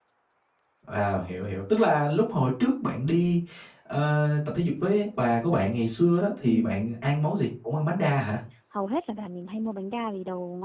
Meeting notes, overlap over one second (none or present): none